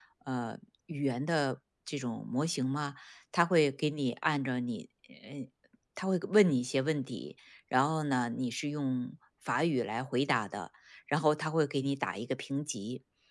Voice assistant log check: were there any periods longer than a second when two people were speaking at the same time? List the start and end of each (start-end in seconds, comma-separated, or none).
none